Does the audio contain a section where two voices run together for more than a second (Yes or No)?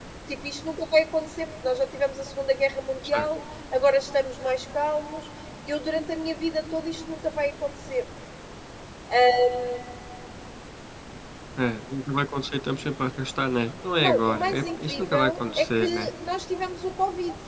Yes